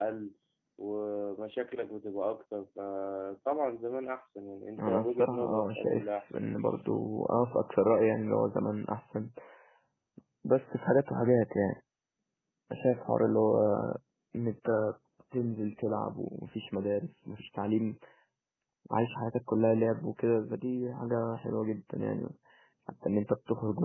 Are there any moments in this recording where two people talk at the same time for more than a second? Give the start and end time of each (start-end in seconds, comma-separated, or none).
4.8-6.3